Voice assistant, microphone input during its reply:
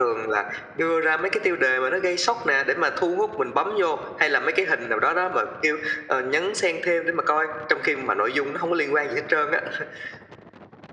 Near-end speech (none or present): none